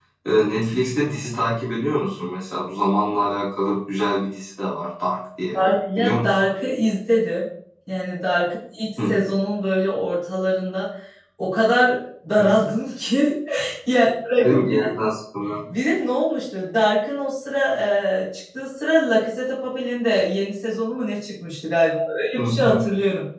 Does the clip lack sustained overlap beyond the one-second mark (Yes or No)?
Yes